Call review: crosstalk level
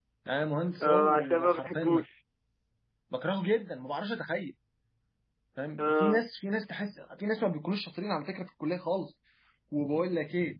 present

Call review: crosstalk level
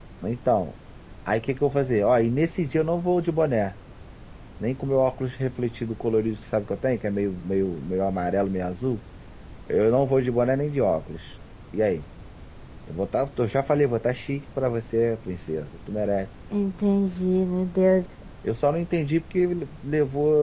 none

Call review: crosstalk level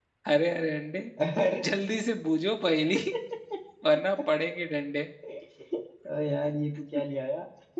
none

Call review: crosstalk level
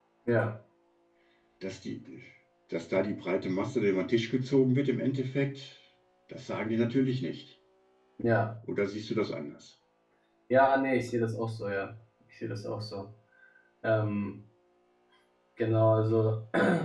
none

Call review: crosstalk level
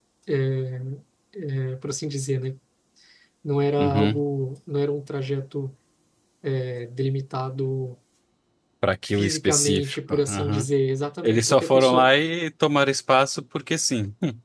present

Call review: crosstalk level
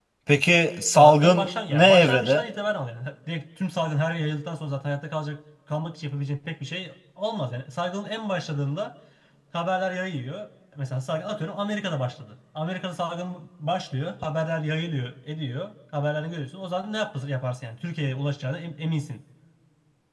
present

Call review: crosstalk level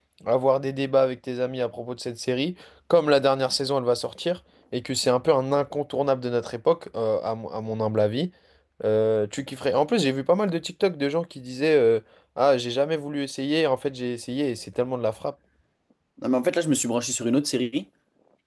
none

